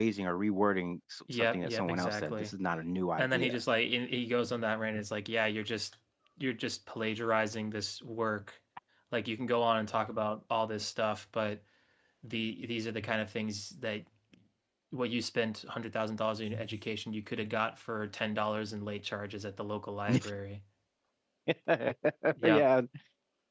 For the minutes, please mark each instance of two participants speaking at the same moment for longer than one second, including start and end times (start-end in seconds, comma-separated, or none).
1.3-2.5